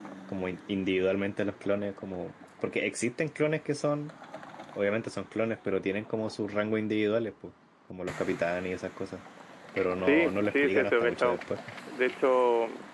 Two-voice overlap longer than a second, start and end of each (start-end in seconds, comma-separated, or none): 10.0-11.4